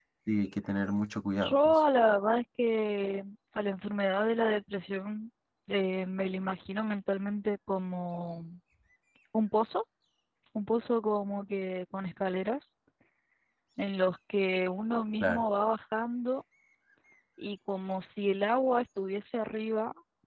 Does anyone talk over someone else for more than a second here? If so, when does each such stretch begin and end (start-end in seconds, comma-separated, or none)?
none